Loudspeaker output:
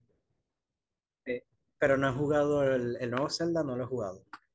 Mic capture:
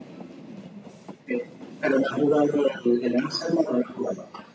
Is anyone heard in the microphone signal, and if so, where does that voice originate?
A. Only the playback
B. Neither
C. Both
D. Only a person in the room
A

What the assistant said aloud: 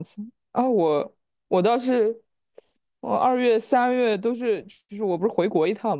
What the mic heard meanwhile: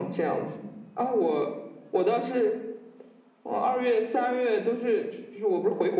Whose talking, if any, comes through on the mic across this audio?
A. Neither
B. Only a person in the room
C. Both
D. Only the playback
D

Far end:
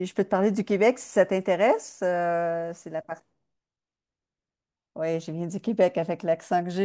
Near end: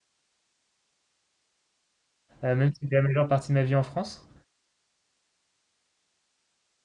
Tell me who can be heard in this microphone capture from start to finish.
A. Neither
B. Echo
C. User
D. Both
C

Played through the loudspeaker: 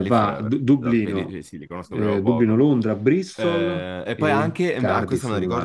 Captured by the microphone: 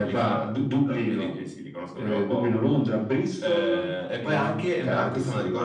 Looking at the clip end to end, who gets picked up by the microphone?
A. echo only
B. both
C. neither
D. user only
A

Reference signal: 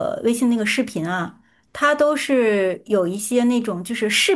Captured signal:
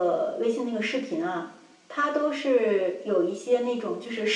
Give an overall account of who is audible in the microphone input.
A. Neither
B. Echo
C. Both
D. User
B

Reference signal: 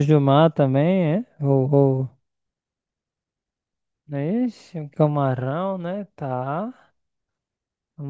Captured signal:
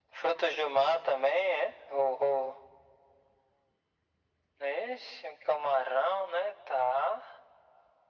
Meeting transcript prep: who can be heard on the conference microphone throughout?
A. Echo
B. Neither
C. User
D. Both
A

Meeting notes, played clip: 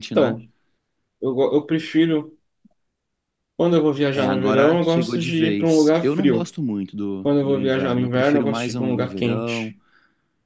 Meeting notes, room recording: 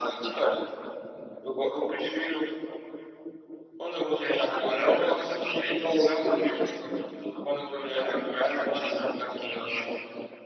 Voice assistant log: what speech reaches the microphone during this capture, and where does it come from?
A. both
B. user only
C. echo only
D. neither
C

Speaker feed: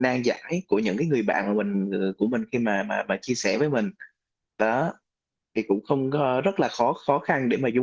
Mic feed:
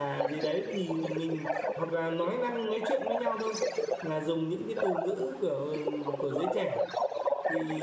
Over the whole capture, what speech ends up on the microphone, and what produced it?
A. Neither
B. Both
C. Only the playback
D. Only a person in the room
B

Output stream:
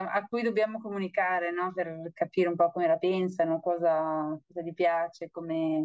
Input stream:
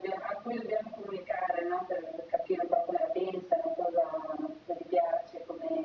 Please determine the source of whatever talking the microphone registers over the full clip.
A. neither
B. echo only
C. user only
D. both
B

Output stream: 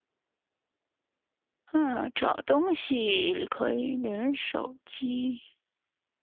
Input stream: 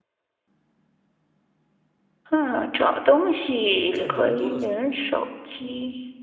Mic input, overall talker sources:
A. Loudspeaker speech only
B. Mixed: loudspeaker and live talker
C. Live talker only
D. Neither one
B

